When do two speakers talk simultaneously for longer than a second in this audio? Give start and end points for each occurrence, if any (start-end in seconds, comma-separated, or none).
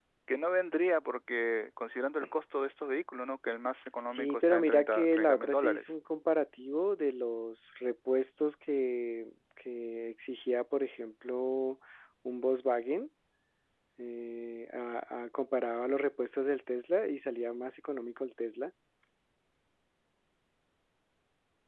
4.0-5.9